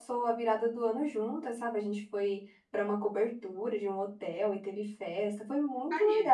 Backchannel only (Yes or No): Yes